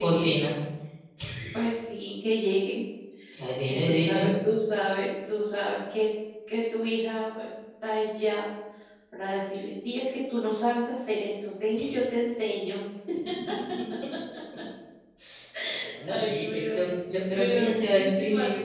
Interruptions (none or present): present